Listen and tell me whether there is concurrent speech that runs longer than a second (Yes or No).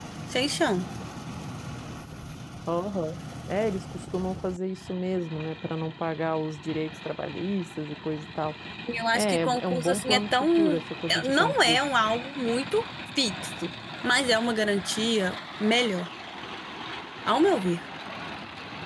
Yes